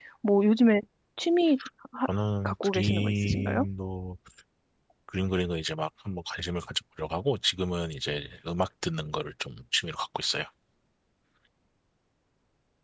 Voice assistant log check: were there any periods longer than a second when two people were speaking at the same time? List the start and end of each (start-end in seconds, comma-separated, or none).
2.4-3.6